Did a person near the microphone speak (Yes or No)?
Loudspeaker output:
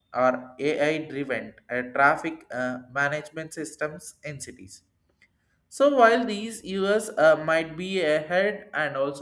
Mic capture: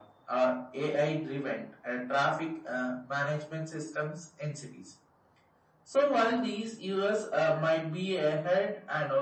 No